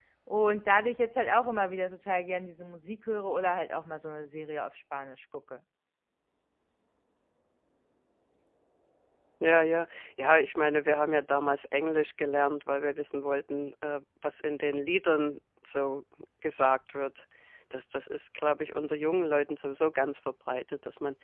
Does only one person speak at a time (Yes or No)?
Yes